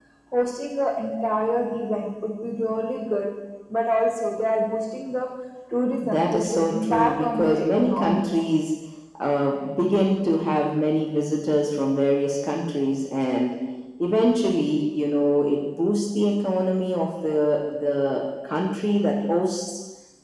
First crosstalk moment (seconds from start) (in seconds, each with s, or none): 6.1 s